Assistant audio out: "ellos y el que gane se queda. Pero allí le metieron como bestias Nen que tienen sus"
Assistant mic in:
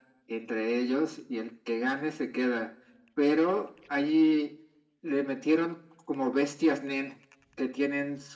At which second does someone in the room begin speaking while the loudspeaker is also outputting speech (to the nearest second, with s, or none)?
none